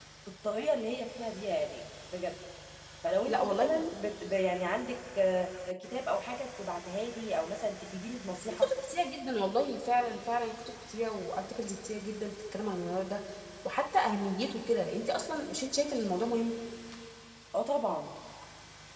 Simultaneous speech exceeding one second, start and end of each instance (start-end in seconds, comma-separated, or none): none